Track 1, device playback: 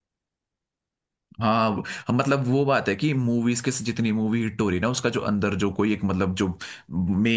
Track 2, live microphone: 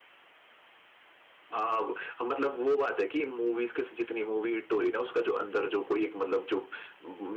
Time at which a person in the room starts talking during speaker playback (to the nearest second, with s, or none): none